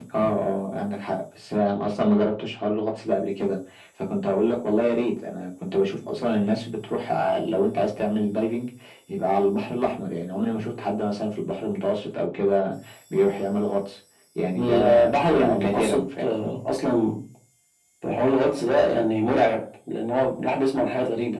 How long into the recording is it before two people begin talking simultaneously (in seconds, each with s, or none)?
14.5 s